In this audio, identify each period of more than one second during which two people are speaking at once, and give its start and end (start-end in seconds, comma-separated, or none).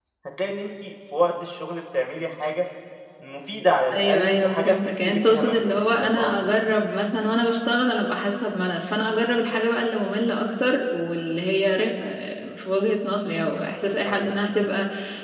3.9-6.4